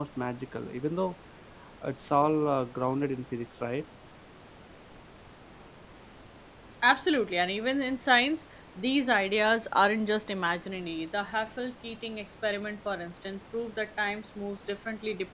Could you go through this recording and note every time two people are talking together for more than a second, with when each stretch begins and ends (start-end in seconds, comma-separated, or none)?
none